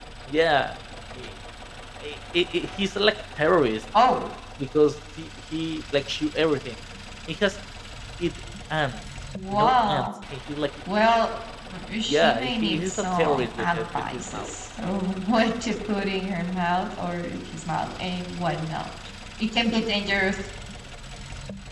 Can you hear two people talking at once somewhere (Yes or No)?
Yes